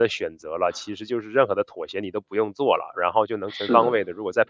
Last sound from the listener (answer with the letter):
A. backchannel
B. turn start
A